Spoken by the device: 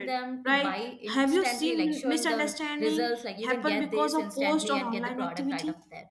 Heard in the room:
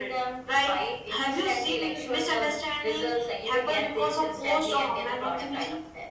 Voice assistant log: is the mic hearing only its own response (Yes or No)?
Yes